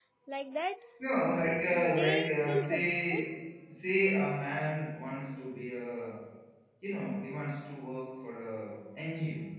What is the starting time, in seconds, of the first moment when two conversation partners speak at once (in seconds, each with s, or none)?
1.7 s